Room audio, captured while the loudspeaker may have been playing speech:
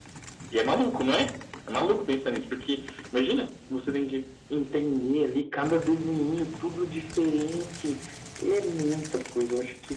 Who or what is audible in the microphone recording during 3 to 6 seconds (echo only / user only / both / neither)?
echo only